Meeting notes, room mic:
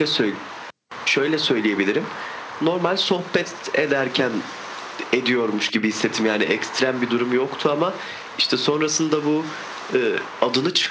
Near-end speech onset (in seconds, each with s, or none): none